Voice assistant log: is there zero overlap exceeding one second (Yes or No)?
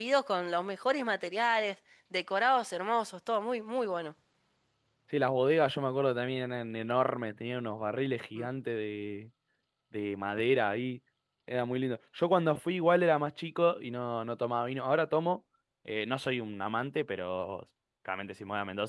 Yes